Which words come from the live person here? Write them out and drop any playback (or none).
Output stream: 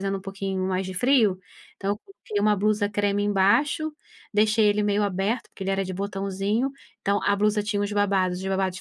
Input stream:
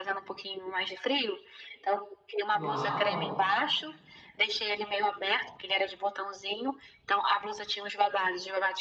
Uau.